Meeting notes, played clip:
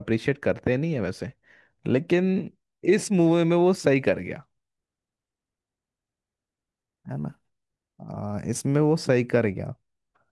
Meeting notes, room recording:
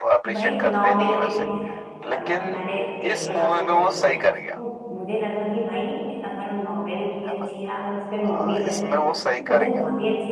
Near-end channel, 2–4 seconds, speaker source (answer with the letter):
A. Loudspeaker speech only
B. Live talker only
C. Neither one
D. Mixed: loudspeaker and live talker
D